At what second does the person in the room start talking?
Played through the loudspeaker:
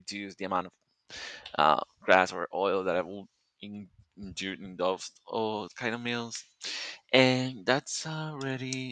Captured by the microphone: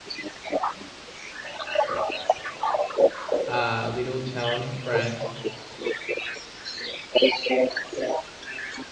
3.4 s

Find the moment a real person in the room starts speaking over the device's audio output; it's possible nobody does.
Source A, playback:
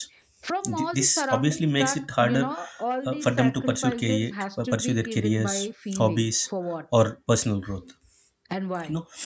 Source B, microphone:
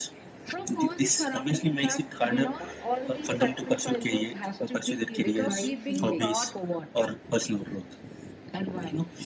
5.2 s

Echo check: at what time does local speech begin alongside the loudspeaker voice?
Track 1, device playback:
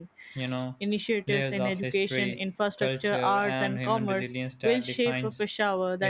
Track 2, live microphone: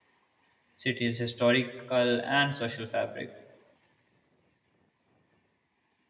0.8 s

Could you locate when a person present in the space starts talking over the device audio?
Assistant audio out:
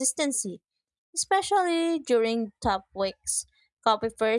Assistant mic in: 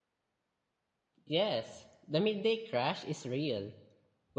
1.2 s

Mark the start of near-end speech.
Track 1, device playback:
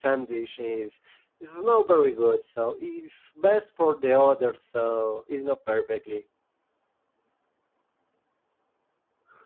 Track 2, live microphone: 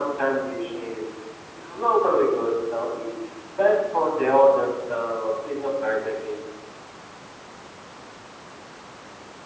none

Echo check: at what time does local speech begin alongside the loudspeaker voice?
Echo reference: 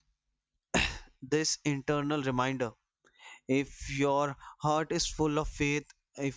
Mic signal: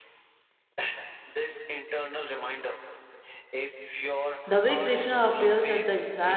4.5 s

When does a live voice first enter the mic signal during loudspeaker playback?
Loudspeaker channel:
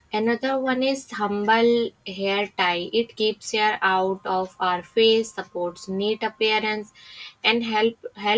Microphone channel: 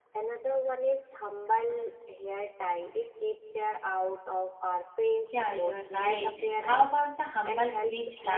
5.3 s

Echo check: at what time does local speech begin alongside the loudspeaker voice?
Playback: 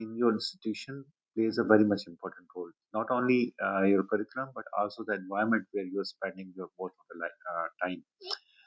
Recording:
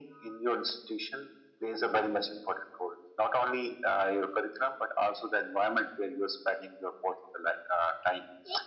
none

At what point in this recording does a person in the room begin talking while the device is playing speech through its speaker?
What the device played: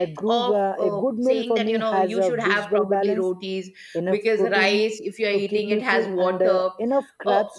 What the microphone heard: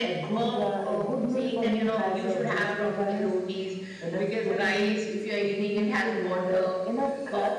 none

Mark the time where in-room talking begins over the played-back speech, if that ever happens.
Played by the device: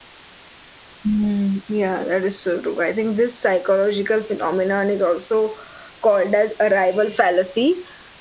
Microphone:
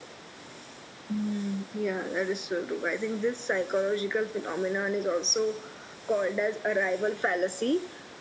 none

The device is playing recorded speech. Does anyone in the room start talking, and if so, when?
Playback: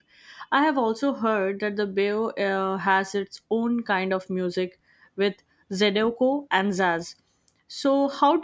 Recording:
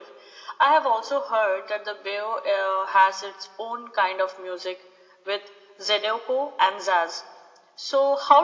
none

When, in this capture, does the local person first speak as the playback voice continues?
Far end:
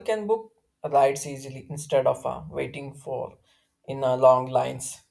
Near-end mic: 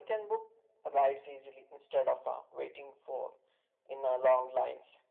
none

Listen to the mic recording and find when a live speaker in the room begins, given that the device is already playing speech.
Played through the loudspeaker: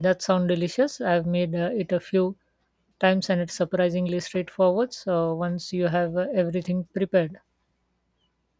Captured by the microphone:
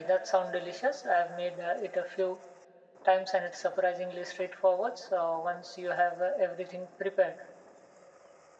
none

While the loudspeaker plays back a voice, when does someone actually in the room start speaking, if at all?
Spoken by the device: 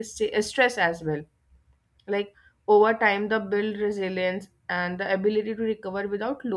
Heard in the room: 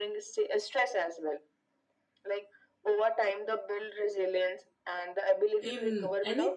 5.6 s

